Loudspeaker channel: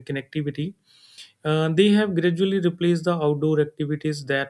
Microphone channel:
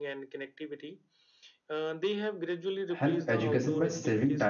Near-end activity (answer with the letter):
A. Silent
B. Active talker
B